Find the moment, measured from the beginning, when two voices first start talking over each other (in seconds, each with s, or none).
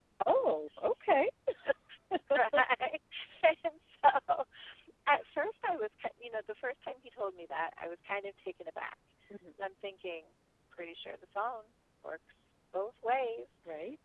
none